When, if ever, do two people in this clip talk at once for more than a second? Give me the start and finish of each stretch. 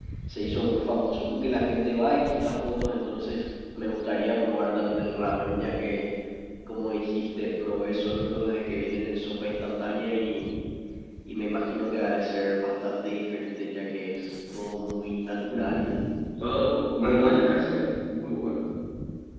none

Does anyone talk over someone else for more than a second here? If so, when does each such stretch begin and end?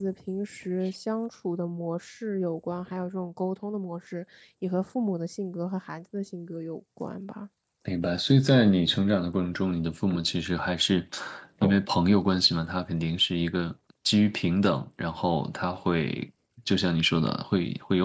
none

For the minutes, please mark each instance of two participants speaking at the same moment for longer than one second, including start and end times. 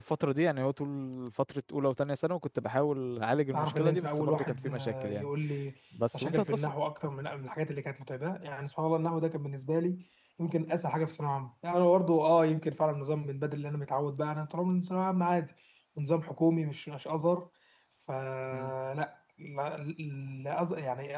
3.5-5.3

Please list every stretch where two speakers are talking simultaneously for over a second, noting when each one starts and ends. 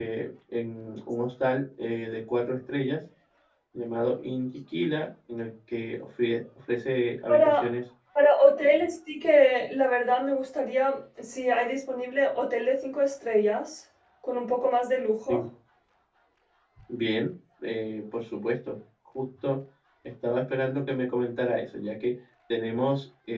none

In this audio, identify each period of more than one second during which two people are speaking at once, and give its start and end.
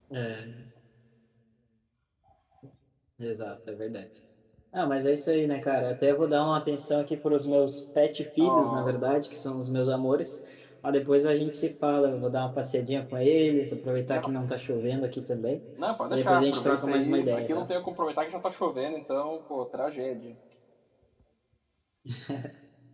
16.1-17.7

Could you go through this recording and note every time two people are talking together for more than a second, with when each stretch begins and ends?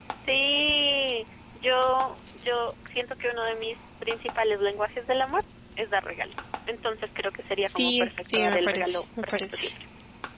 7.7-9.6

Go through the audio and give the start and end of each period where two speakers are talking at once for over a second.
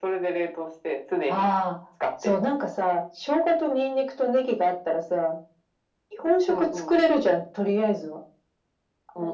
none

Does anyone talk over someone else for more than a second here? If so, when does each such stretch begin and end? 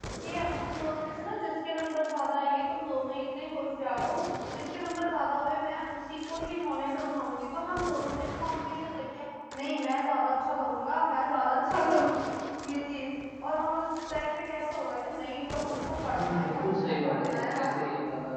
16.1-17.8

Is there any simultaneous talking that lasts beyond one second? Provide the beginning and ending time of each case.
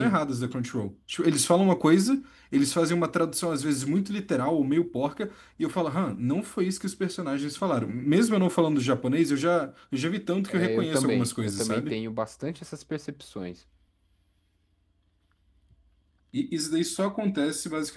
10.5-11.9

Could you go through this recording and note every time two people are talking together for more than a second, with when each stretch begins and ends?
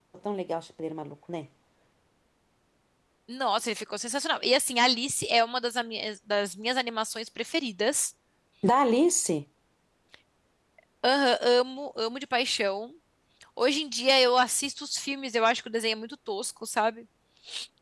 none

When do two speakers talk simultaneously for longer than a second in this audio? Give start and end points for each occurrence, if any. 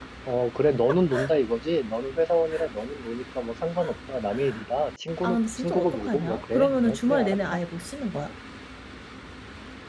5.2-7.6

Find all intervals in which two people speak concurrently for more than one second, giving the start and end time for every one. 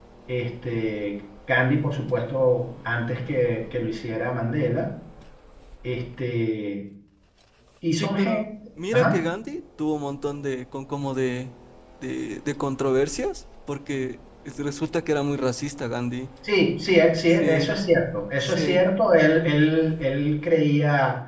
none

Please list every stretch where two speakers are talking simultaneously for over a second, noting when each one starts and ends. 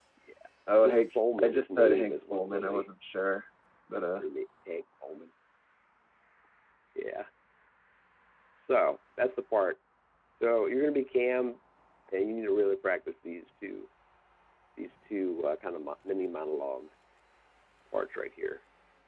0.8-2.8

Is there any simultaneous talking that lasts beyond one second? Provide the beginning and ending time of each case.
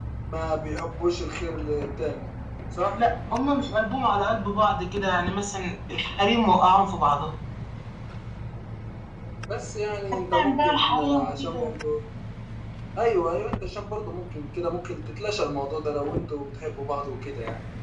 10.3-11.7

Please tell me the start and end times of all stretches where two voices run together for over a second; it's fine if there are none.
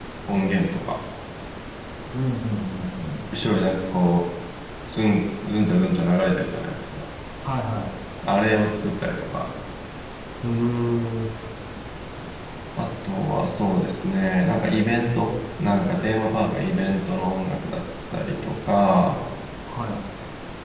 none

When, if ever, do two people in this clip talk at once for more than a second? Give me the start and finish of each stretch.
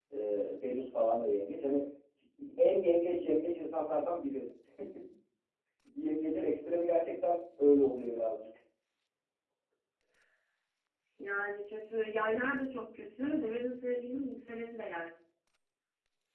none

